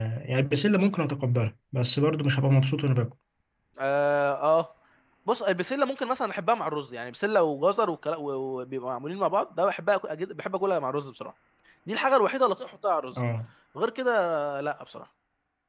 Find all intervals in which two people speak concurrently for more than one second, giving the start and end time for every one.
none

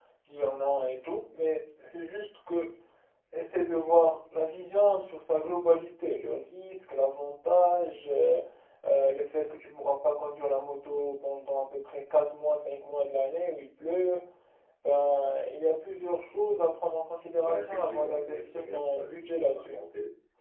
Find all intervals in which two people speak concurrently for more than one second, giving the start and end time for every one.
17.4-19.8

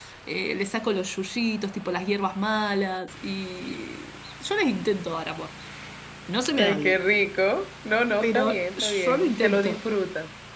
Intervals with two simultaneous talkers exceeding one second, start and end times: 8.2-9.8

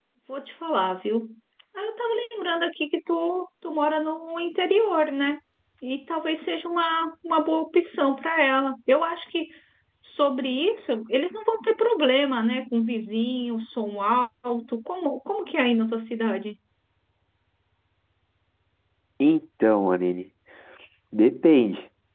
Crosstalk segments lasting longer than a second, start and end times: none

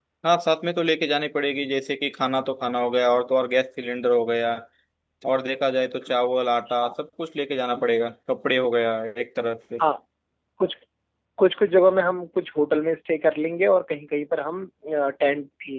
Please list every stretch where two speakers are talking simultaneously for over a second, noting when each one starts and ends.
none

